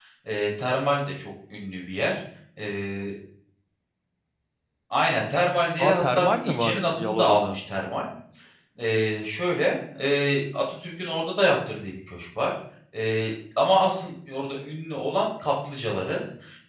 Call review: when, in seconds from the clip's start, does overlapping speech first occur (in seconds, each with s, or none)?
5.8 s